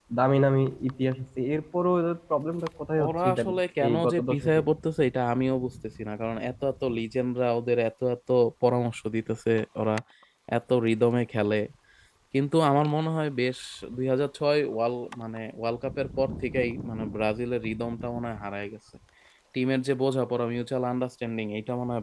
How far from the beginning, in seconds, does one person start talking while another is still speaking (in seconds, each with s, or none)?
3.0 s